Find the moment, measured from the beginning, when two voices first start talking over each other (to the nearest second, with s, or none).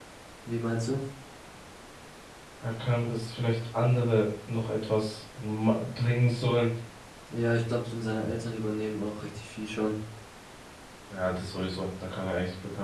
none